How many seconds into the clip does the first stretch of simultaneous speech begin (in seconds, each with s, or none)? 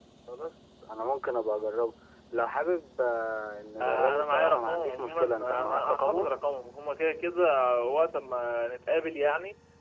3.8 s